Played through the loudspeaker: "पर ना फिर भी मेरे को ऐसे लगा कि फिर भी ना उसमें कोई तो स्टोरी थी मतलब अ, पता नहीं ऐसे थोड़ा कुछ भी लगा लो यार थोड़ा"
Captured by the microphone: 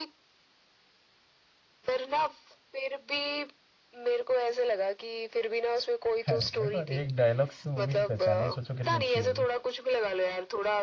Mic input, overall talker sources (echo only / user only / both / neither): both